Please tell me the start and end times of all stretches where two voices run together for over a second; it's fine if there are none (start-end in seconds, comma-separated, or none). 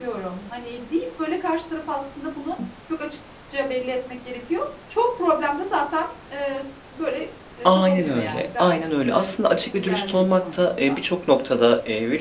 7.7-11.0